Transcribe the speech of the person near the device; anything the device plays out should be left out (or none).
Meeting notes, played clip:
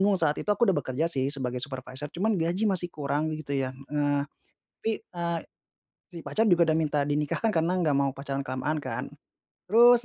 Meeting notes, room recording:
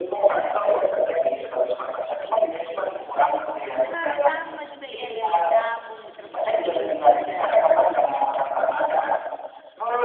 Oh sama orang yang sama juga iya iya iya nyambung nih terus serius nih ya udah terus gimana?